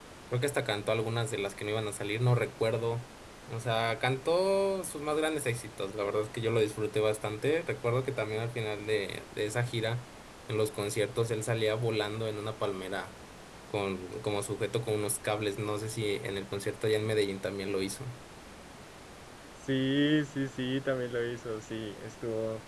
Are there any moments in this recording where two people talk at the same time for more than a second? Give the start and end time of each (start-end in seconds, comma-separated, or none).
none